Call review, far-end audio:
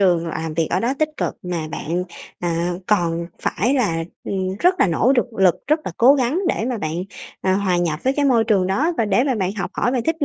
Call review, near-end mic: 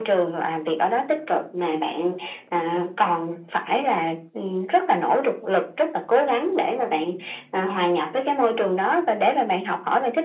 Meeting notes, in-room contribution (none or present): none